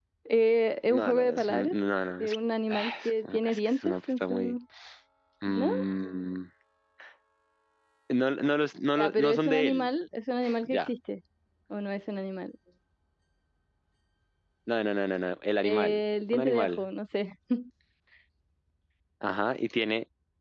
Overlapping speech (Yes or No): Yes